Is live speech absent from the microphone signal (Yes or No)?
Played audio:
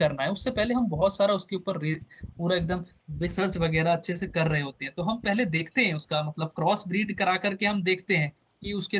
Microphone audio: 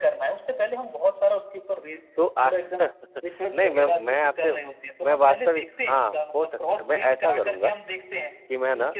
No